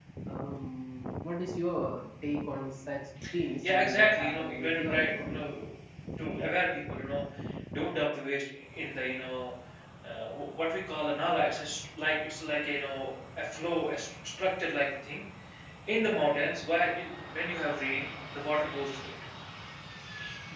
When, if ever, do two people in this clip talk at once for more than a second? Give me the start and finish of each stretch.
3.6-5.4

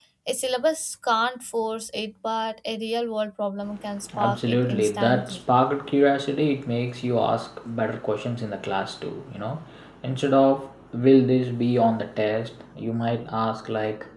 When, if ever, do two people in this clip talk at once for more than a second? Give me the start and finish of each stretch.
4.2-5.4

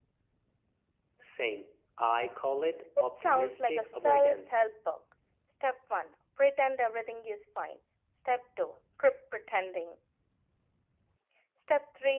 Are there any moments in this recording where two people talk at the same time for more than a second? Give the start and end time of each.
3.0-4.6

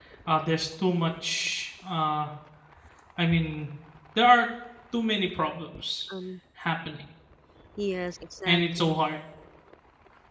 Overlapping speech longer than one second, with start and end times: none

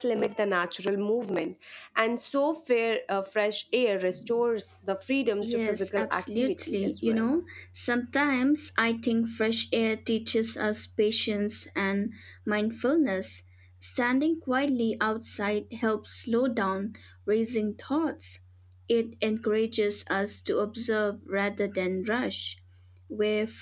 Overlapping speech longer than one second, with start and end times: 5.4-7.3

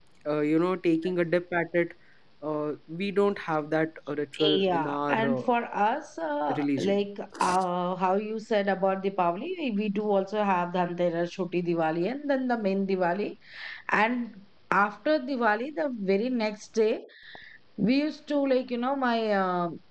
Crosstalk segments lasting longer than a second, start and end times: 4.3-5.5

